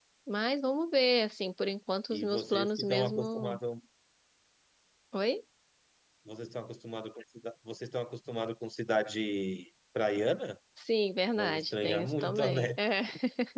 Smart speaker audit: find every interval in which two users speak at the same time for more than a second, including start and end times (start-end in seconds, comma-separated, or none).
2.1-3.6, 11.4-12.7